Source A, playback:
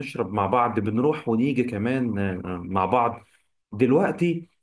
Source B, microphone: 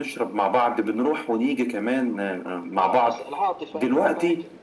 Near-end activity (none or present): present